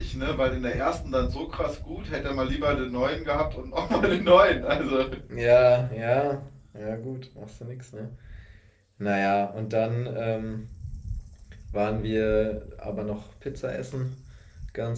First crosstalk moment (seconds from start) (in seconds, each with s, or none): none